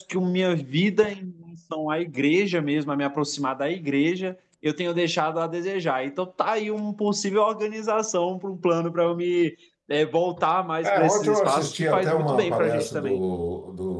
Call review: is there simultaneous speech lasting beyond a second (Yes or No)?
Yes